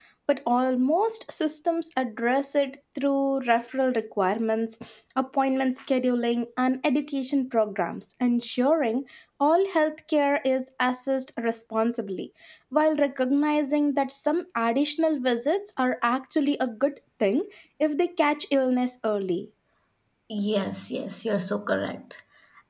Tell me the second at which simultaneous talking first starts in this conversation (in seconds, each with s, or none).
none